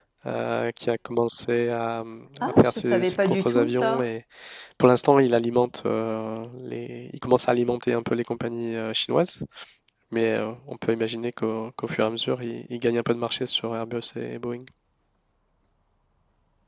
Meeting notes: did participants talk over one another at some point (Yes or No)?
Yes